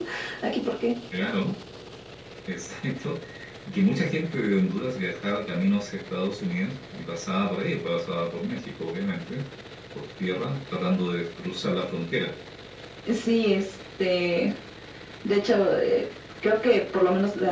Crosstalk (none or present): none